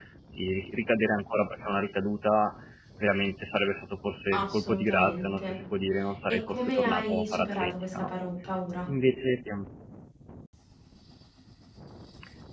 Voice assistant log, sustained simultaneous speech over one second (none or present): present